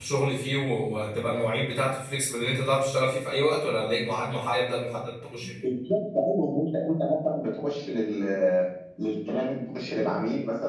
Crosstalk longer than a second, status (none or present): none